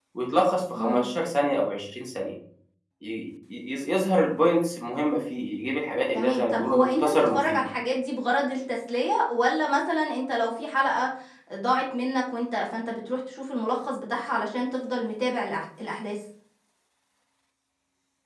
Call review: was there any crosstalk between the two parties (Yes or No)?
Yes